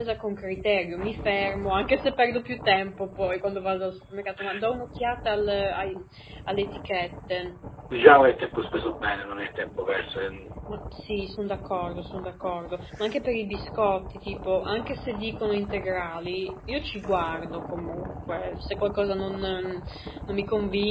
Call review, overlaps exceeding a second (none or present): none